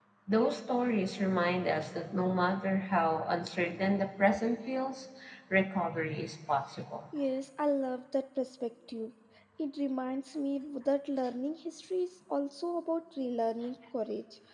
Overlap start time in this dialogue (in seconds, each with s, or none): none